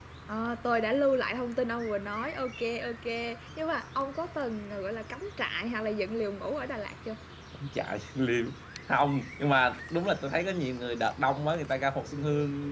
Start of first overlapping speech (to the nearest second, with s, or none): none